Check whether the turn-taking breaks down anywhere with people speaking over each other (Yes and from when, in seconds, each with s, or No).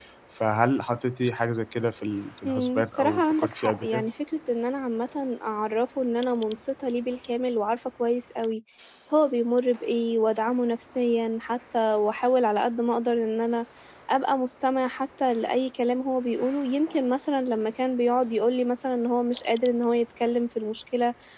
Yes, from 2.4 s